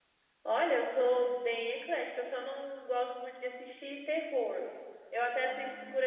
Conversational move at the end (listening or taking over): listening